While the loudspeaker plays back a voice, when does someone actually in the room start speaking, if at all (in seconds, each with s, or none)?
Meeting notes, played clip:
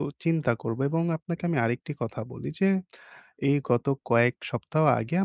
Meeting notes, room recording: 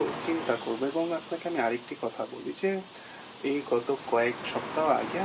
none